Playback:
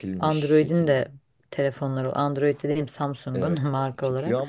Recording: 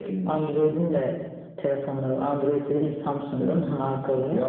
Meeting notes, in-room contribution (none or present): none